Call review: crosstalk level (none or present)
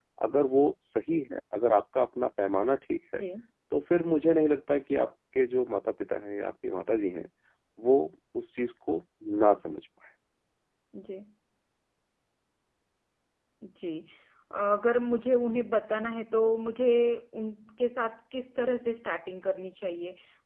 none